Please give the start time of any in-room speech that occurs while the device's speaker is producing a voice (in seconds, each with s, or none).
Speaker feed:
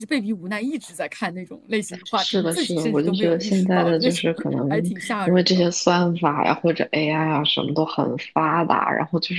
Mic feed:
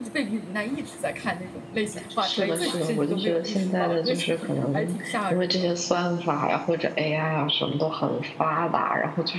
2.4 s